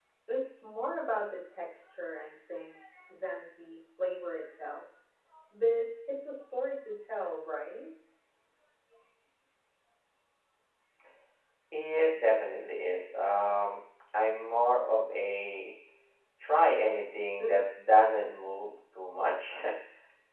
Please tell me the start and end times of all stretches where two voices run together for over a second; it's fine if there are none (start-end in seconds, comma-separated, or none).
none